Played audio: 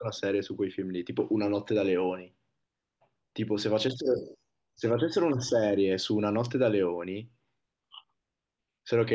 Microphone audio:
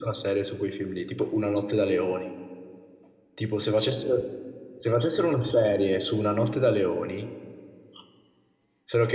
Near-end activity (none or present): none